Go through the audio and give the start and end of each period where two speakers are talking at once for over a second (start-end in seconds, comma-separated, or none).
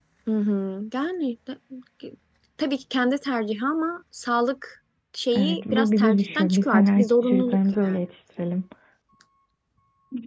5.4-8.0